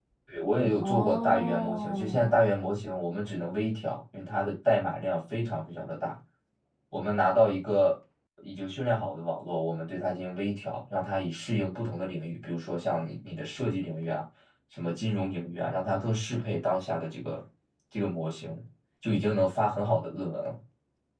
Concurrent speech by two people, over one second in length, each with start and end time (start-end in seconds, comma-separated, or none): 0.8-2.3